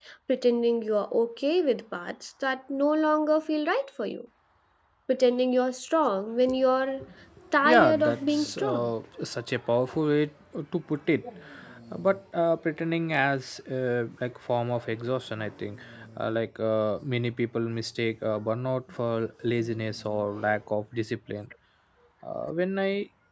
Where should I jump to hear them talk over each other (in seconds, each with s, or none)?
7.6 s